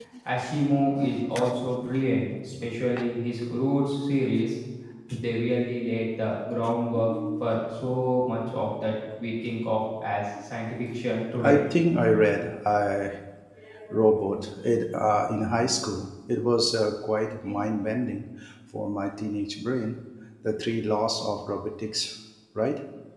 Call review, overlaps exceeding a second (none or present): none